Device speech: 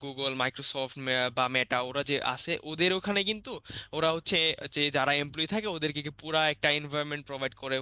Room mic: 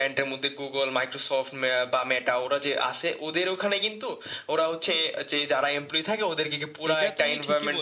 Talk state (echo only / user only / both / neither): both